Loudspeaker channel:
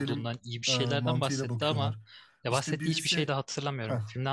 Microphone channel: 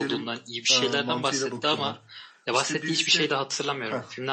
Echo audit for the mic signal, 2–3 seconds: echo only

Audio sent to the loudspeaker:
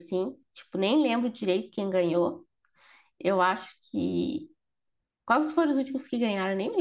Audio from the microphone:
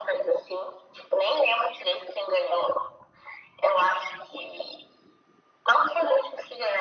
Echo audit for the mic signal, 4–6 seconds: echo only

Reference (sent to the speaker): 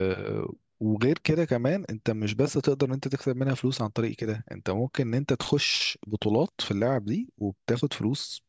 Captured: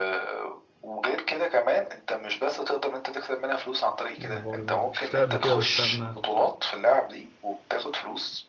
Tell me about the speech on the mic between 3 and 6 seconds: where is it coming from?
both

